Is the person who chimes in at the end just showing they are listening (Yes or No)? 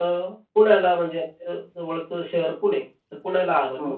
Yes